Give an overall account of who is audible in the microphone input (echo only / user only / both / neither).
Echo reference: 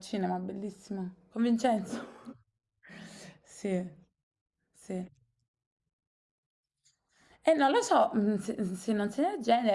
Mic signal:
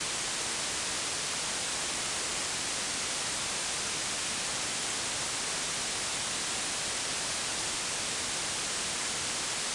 neither